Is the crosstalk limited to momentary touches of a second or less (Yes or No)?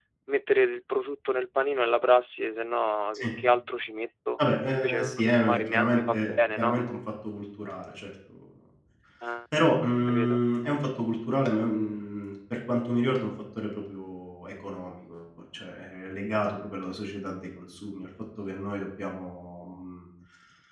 No